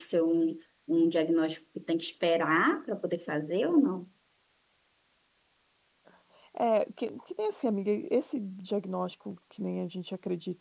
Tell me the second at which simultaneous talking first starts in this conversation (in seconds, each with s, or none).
none